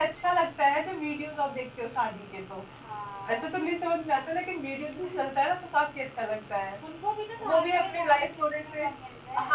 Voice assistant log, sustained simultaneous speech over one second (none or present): present